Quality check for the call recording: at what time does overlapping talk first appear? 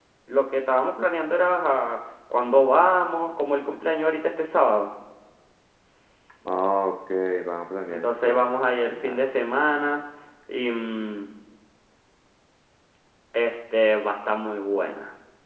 7.9 s

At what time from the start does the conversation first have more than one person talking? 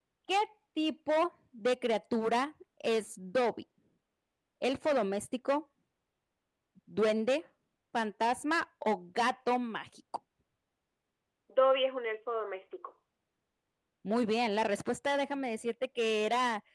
none

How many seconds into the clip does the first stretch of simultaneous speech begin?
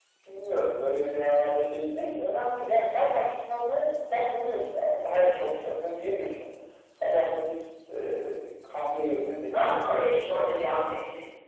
9.5 s

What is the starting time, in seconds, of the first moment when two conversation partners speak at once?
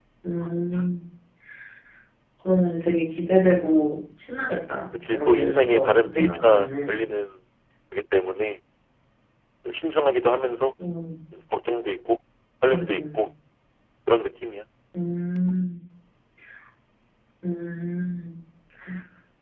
4.9 s

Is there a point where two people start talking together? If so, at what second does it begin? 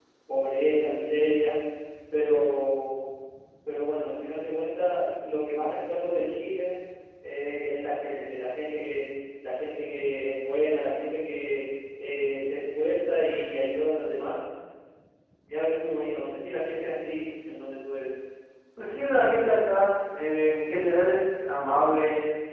none

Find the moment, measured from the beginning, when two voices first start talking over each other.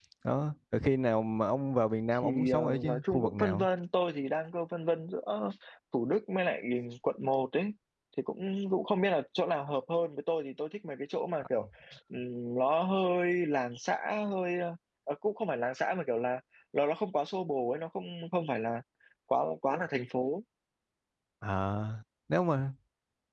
2.2 s

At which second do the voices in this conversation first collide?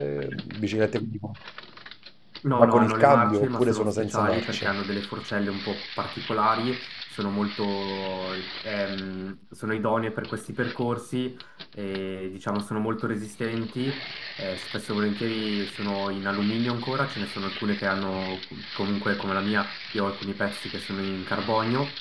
2.5 s

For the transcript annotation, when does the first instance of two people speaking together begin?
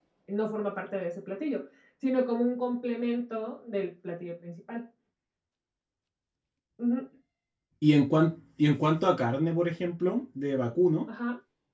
none

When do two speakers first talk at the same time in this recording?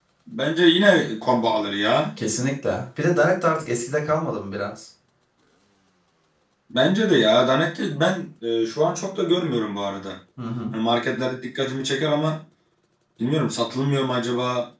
none

